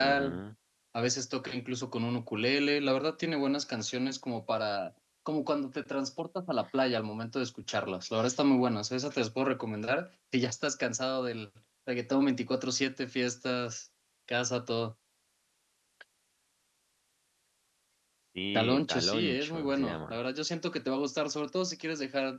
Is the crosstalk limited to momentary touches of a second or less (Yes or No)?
No